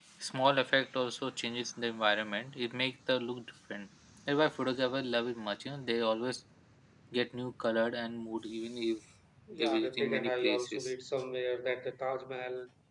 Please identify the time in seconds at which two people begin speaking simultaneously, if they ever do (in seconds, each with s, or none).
9.5 s